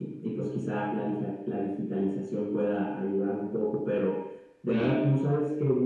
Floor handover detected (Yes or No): No